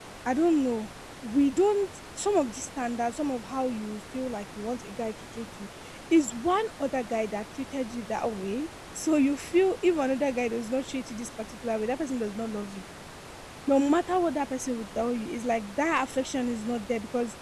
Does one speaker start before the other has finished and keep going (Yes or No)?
No